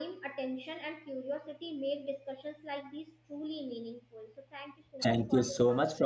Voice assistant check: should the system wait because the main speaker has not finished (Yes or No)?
No